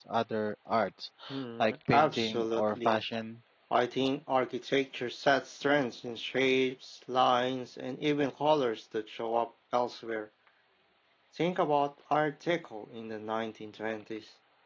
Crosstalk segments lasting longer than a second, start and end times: 1.6-3.0

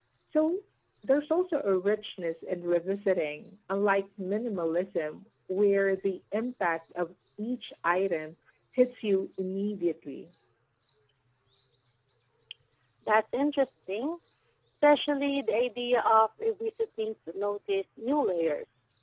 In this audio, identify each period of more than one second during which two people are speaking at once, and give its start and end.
none

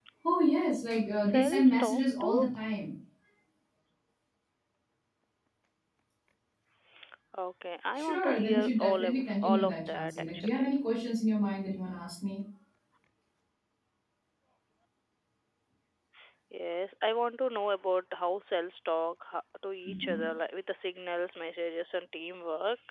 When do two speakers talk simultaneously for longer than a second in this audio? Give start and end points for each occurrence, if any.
1.3-2.5, 8.0-10.7

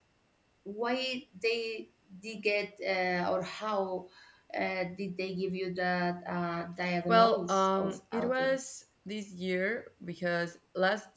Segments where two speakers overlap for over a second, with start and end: 7.1-8.6

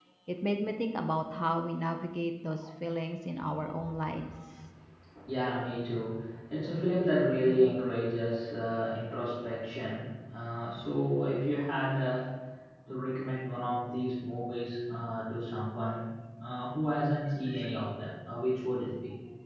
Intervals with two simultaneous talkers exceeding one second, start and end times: none

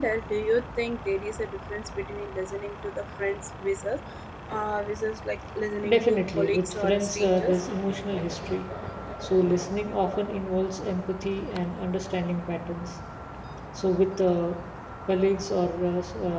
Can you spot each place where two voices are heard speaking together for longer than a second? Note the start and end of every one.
5.9-7.6

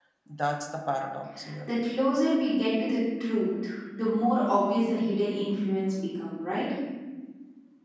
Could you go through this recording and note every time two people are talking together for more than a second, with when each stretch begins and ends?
none

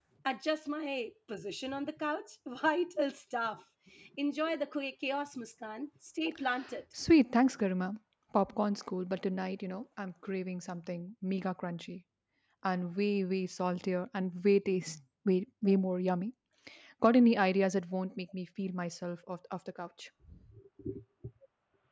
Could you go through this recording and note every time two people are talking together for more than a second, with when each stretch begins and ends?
none

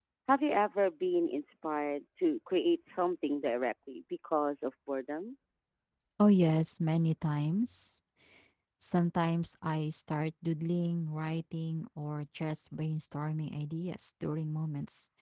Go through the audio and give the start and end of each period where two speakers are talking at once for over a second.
none

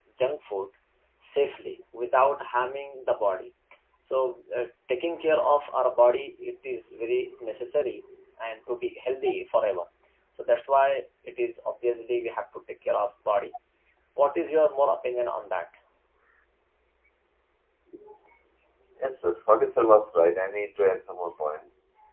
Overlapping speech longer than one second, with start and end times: none

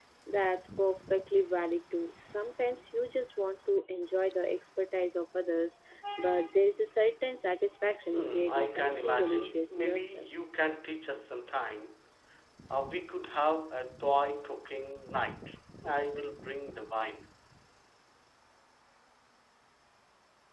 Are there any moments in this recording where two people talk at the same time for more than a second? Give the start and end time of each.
8.1-10.3

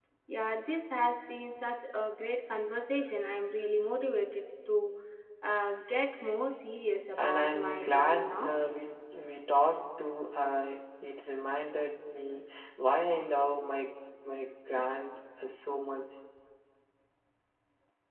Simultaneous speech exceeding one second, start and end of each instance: 7.2-8.5

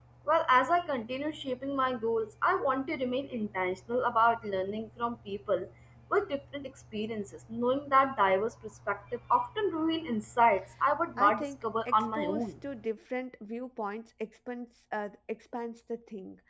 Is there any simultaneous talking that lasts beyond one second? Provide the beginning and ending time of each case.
11.2-12.4

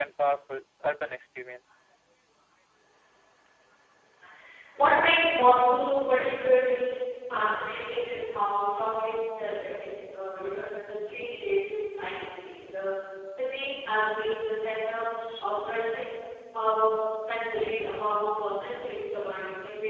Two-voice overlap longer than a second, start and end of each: none

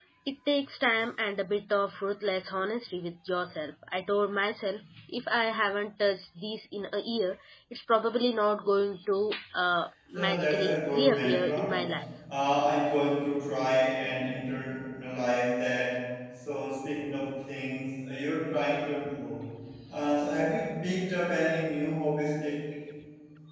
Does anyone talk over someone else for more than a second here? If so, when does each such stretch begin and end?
10.1-11.8

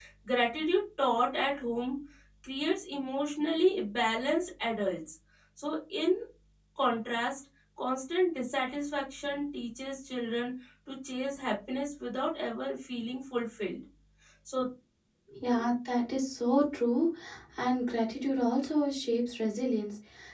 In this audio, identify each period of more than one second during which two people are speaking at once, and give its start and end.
none

